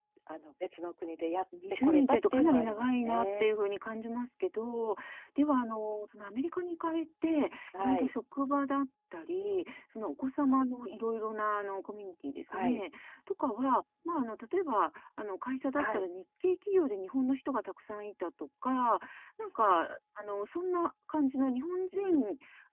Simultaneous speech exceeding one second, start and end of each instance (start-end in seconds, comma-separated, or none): 1.8-3.5